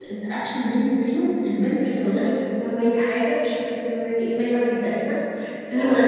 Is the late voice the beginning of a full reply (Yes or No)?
No